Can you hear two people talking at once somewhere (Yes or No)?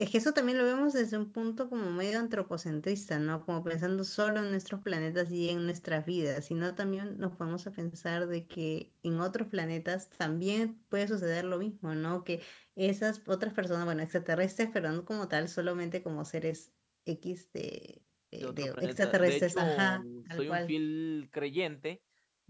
Yes